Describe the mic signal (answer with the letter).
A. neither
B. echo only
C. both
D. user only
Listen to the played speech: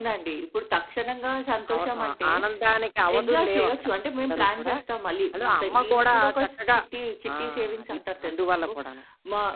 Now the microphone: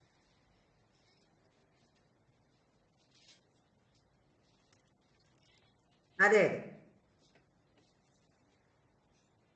D